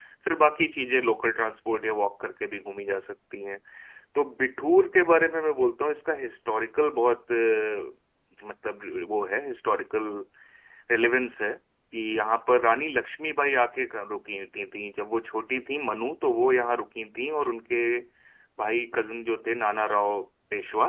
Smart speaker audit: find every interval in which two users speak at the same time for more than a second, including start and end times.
none

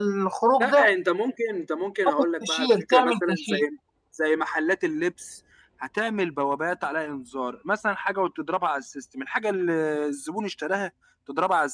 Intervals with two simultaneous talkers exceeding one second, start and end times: 2.4-3.6

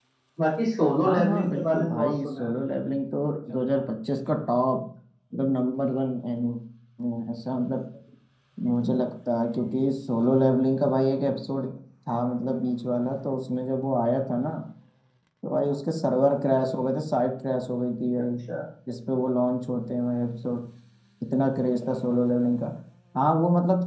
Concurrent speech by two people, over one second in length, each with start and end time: 1.1-2.5

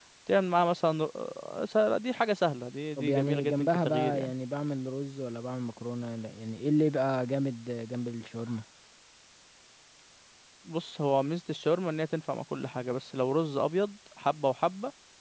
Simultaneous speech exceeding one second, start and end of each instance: 3.0-4.3

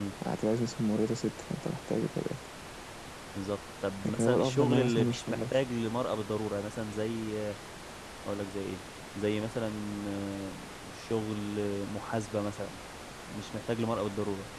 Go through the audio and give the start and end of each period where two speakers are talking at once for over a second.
4.0-5.6

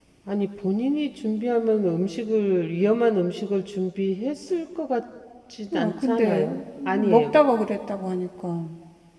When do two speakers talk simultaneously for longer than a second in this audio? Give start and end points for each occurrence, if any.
5.7-7.4

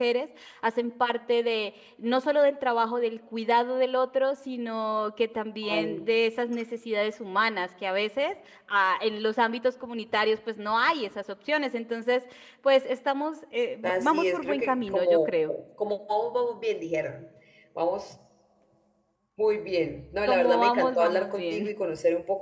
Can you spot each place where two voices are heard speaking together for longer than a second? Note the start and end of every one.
13.8-15.3, 20.2-21.7

